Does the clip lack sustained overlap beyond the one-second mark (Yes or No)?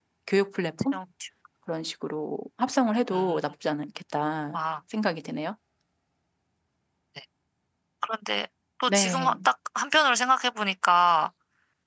Yes